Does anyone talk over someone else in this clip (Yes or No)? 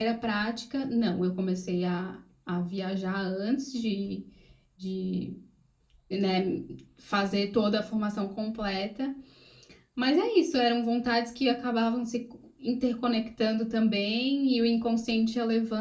No